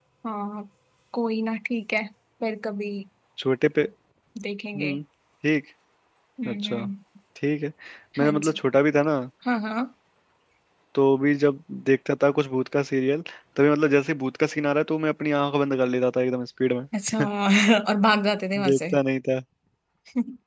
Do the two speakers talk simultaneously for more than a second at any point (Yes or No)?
No